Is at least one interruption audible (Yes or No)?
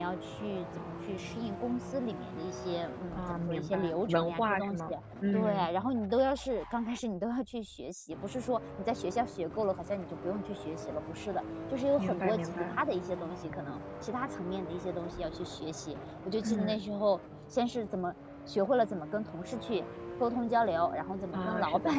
Yes